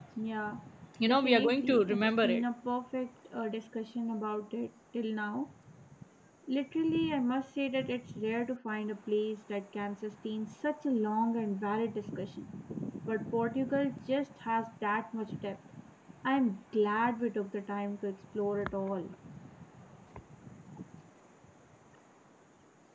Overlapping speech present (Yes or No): Yes